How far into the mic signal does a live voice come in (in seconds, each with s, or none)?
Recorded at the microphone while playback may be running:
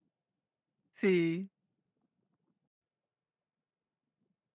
0.9 s